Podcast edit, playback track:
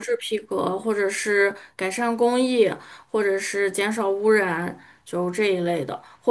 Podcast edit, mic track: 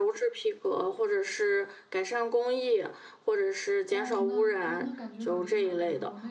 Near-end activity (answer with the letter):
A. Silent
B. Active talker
B